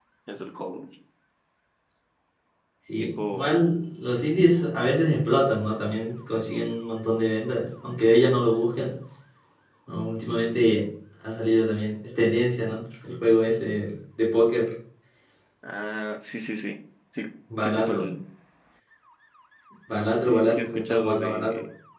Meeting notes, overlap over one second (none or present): present